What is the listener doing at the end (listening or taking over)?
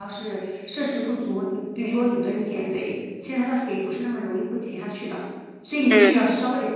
listening